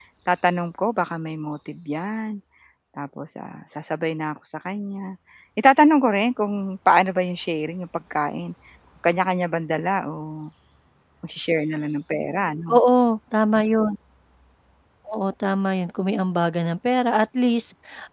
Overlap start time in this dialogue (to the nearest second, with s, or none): none